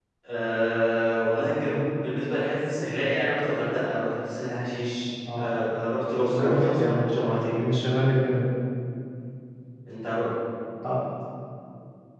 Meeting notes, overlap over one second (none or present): present